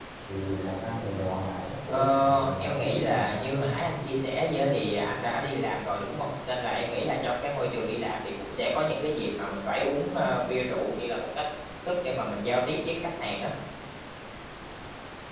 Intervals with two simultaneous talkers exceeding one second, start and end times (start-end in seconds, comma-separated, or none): 1.9-3.7